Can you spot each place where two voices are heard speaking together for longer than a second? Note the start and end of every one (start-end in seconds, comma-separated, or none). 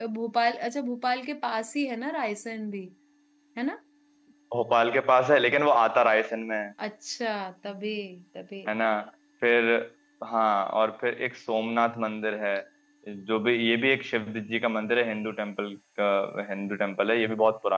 none